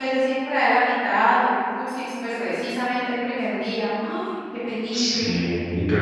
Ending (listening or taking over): taking over